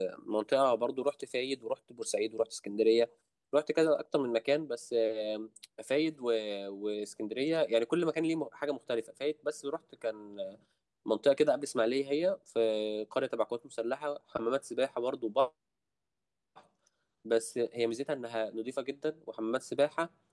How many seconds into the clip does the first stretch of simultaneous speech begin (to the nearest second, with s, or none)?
none